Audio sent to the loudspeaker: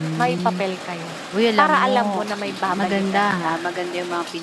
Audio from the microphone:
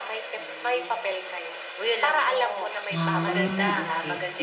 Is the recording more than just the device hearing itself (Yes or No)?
Yes